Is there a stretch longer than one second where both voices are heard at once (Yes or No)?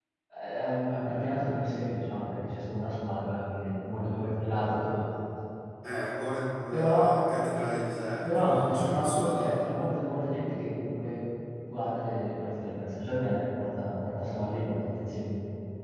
Yes